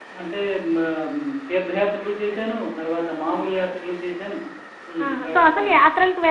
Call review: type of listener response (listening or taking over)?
taking over